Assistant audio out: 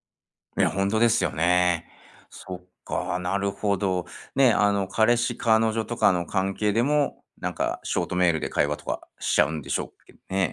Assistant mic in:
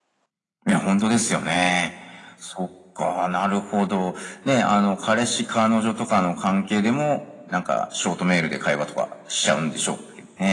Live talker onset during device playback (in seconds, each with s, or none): none